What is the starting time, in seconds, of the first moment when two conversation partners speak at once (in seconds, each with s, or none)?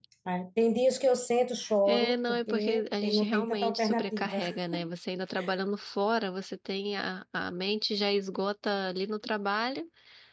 1.9 s